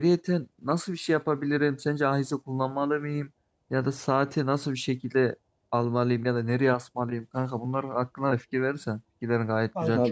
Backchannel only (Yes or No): No